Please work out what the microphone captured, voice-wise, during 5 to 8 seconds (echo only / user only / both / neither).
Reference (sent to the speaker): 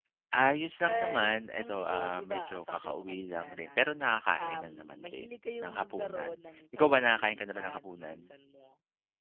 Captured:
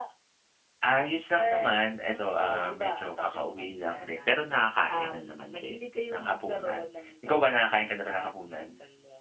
echo only